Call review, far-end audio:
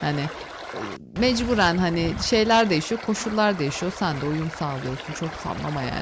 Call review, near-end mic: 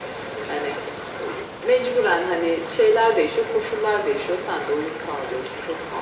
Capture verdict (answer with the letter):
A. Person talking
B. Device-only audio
B